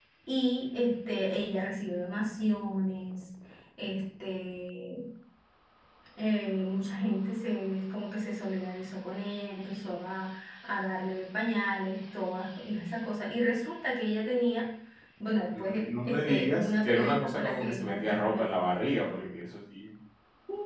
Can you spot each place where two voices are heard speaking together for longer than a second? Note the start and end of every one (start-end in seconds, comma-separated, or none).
15.5-18.5